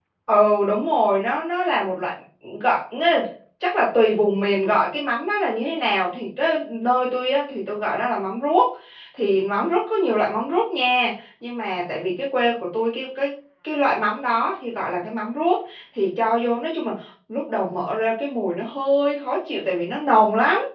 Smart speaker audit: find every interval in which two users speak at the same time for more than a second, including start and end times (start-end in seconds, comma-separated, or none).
none